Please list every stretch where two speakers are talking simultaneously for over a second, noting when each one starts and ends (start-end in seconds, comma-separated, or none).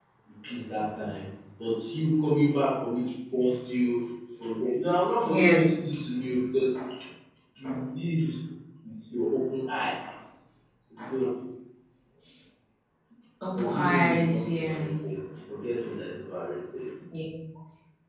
13.6-14.9